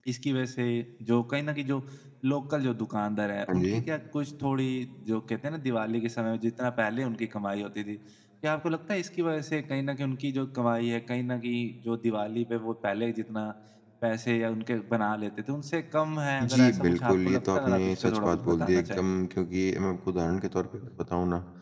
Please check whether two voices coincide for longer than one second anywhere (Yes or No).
Yes